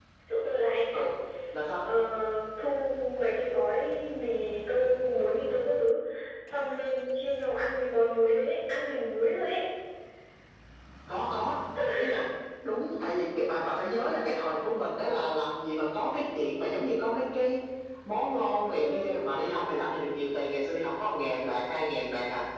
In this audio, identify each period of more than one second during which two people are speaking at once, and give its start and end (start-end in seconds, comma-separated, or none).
none